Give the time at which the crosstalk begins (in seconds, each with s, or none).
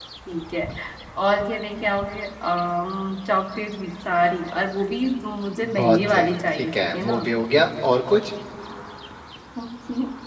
5.6 s